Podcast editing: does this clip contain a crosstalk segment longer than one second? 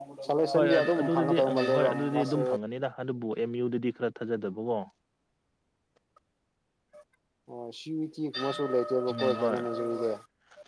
Yes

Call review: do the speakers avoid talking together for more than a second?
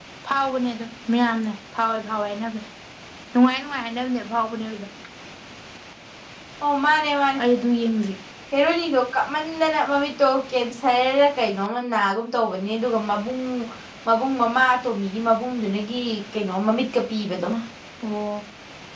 Yes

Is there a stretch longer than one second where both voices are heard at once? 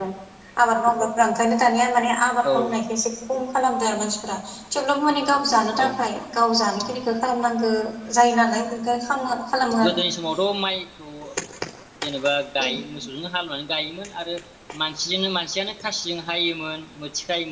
No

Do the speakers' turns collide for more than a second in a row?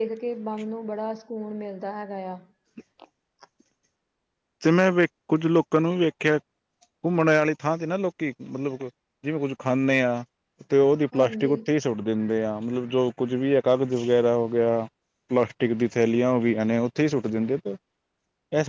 No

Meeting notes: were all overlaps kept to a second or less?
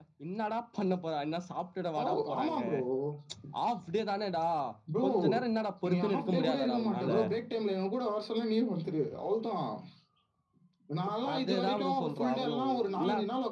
No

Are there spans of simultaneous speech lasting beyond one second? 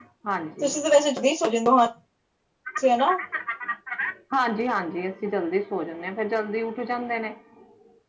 No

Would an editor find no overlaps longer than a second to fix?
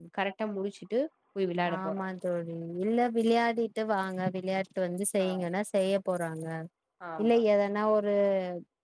Yes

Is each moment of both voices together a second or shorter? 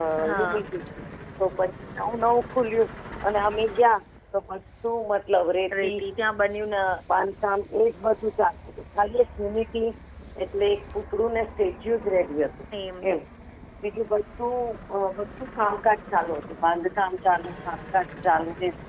Yes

